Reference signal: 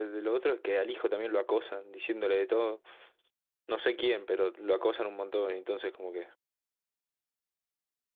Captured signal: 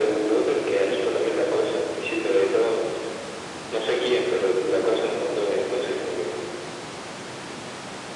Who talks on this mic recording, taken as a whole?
echo only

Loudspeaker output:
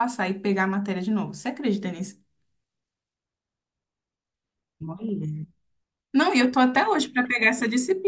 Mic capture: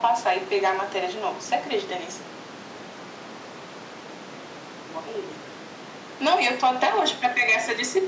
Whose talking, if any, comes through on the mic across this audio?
echo only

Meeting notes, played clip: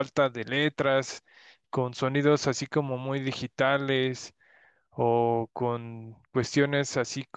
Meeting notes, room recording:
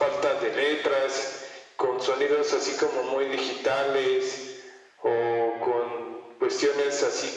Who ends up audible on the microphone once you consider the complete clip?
echo only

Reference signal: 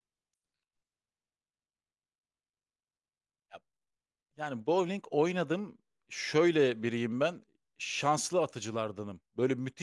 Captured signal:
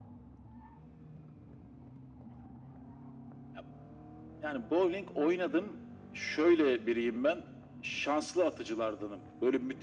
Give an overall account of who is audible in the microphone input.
echo only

